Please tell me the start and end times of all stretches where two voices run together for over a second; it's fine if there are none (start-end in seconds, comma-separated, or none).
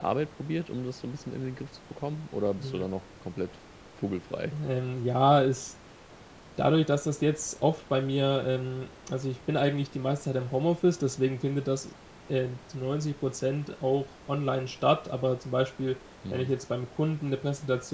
none